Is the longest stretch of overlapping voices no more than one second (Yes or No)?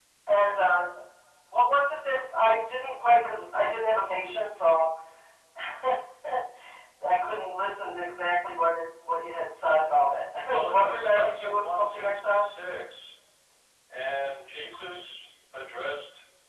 No